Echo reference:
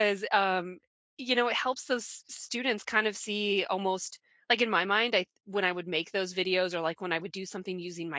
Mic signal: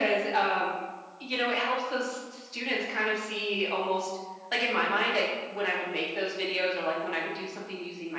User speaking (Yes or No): No